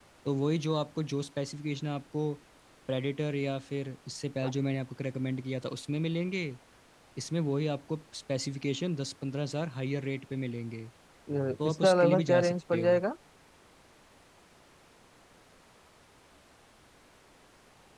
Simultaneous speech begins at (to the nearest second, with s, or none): 12 s